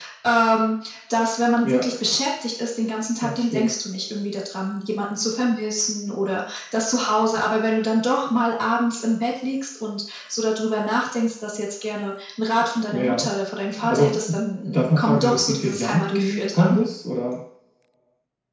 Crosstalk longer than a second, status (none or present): present